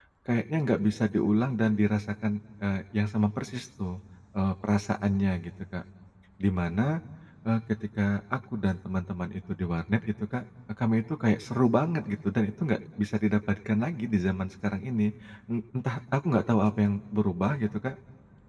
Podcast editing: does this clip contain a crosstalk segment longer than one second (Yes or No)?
No